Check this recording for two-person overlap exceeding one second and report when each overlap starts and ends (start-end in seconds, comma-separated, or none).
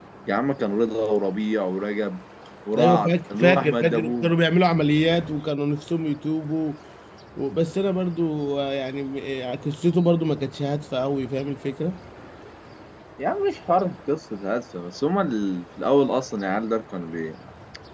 2.8-4.3